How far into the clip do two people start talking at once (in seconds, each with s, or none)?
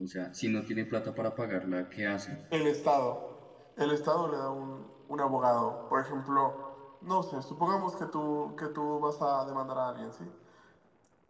none